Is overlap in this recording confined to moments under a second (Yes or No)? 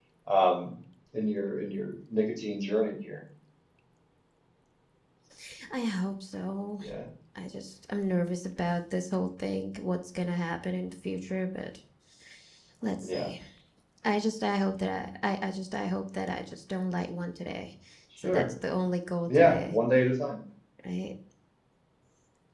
Yes